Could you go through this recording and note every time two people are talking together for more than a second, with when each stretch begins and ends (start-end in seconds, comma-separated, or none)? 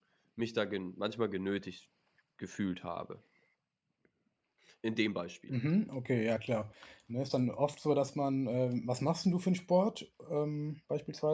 none